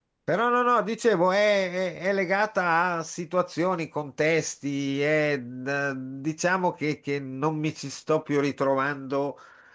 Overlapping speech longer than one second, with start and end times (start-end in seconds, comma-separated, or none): none